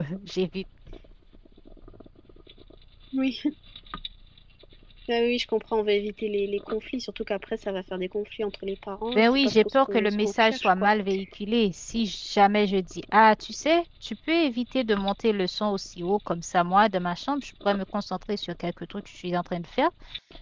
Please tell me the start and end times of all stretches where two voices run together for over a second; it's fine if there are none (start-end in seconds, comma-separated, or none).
9.2-10.9